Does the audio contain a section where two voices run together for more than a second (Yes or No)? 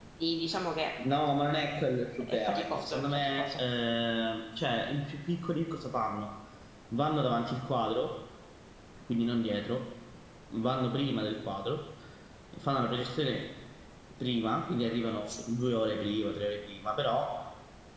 Yes